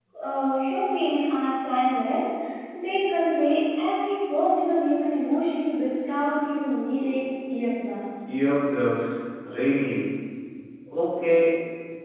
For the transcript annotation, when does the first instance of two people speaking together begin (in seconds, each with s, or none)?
none